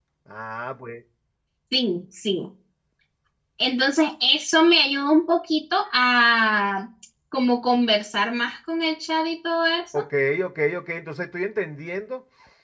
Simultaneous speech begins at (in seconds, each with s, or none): none